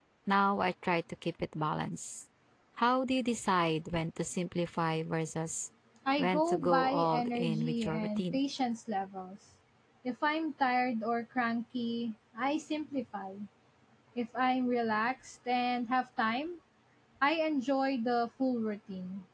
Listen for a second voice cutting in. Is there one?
Yes, from 6.2 s

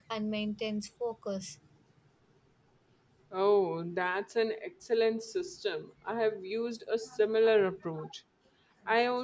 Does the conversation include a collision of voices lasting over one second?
No

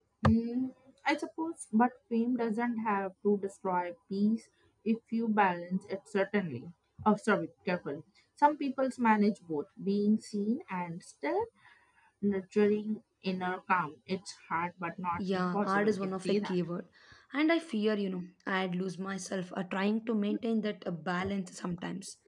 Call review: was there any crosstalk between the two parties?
Yes, from 15.2 s

